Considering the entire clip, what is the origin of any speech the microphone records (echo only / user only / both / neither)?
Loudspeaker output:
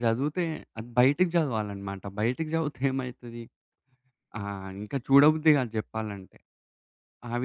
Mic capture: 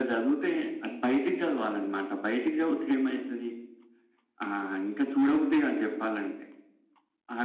echo only